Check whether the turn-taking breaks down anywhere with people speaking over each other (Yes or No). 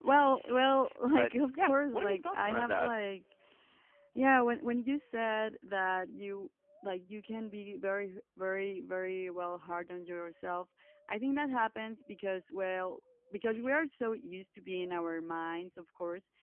Yes